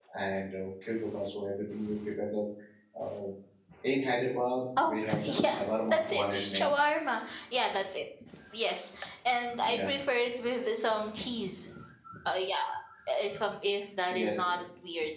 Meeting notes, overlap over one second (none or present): present